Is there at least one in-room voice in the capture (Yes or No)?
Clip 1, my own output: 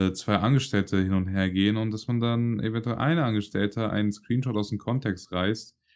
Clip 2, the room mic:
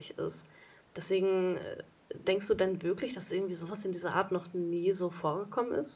Yes